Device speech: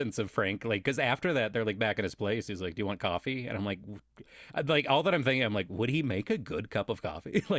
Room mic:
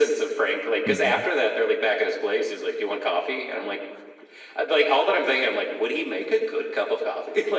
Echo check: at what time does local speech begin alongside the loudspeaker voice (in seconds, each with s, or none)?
0.8 s